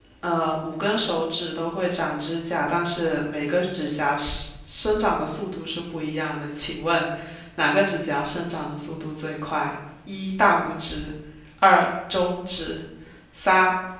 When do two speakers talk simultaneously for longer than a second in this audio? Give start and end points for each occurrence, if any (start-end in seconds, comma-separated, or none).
none